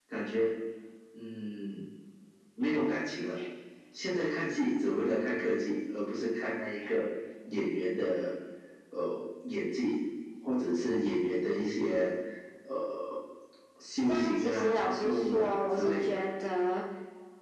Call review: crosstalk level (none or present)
present